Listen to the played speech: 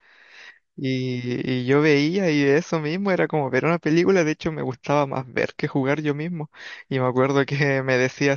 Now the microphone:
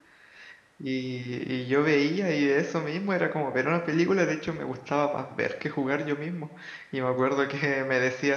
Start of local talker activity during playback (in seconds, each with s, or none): none